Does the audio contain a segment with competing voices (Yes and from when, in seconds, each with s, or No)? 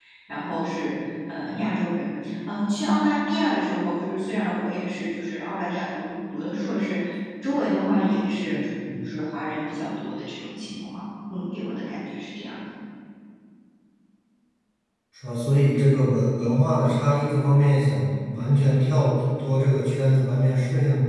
No